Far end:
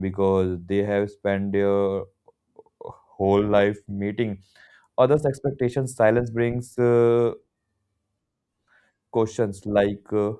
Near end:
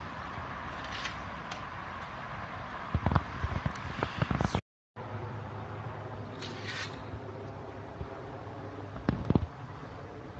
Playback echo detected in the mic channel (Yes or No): No